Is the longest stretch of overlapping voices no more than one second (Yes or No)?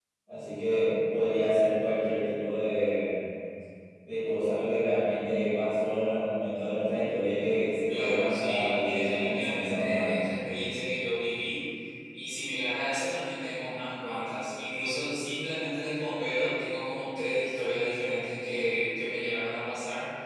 No